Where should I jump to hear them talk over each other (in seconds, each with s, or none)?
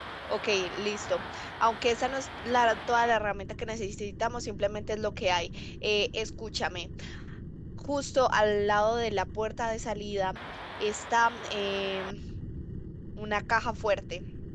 none